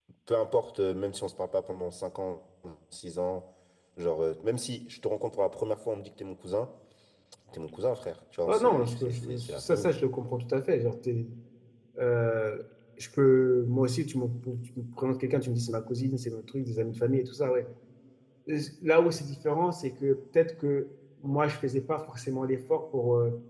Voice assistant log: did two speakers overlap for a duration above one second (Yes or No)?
Yes